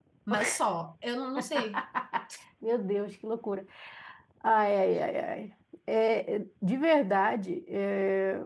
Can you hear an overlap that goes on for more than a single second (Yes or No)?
No